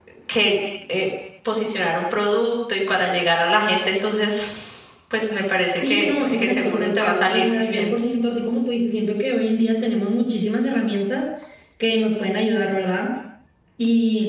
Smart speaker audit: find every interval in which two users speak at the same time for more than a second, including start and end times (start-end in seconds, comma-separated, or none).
5.9-7.9